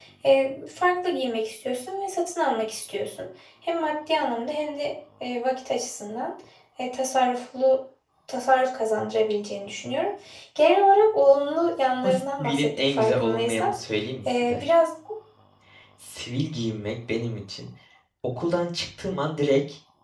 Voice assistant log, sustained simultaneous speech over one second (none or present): present